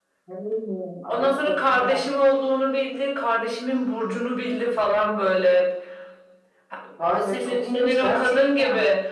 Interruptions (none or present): present